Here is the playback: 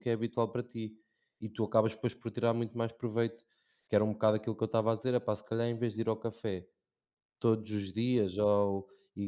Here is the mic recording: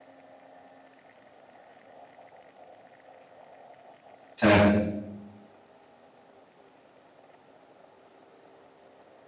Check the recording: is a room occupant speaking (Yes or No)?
Yes